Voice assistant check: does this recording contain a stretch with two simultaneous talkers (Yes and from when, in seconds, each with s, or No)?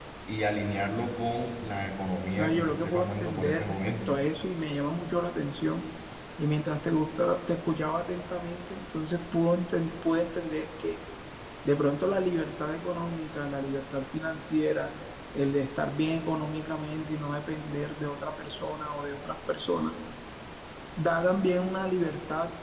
Yes, from 2.3 s